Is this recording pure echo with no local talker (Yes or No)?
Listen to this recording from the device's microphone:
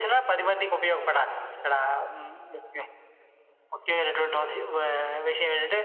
Yes